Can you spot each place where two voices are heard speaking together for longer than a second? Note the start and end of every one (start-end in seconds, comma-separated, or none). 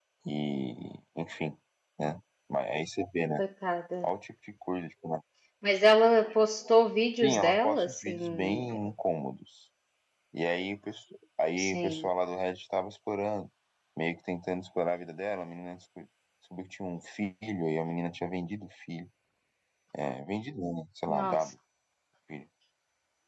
7.2-8.8